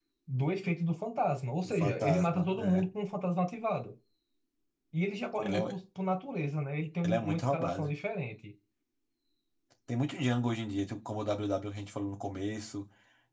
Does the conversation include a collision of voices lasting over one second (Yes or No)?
Yes